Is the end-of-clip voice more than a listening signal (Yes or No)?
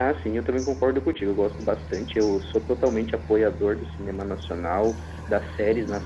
No